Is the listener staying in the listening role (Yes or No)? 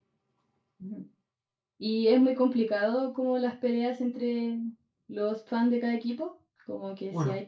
Yes